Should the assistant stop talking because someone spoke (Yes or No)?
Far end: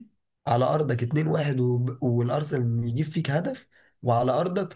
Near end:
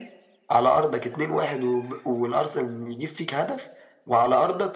No